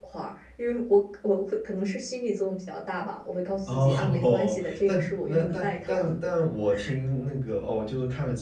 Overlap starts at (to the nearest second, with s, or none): 4 s